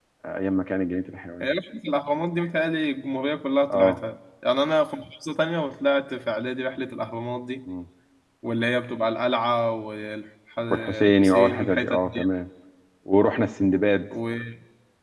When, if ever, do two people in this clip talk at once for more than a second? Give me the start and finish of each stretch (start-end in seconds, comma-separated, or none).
10.7-12.2